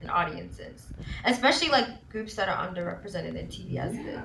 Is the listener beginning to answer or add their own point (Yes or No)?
Yes